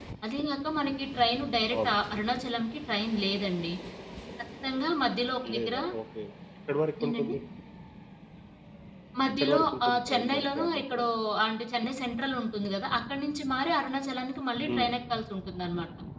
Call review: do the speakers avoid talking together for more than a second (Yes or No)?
No